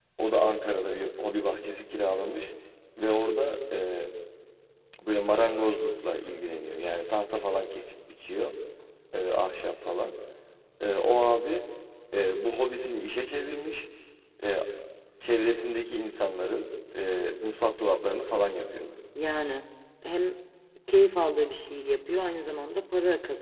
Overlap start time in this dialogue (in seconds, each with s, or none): none